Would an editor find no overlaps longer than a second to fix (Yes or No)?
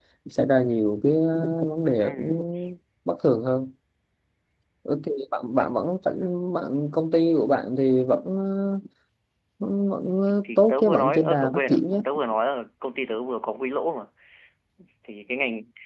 No